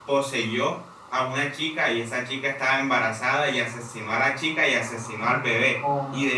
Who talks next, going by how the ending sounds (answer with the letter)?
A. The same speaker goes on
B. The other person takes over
A